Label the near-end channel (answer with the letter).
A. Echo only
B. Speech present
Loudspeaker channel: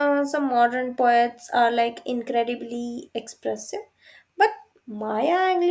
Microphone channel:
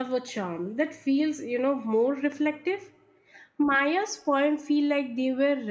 B